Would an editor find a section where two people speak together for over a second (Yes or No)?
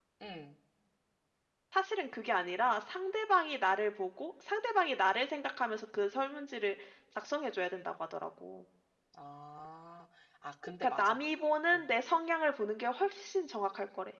No